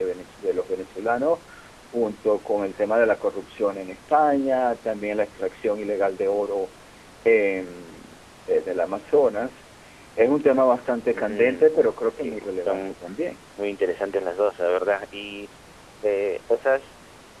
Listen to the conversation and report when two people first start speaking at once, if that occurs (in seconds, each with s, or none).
11.1 s